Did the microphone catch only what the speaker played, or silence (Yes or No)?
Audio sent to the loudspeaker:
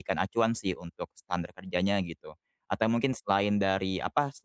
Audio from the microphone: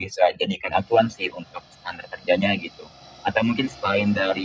Yes